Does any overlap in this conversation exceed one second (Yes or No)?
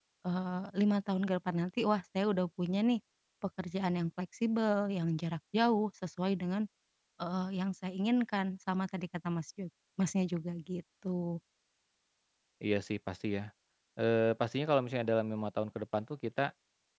No